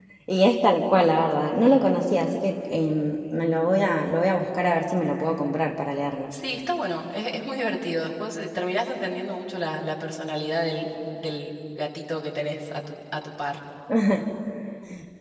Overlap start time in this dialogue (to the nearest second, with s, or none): none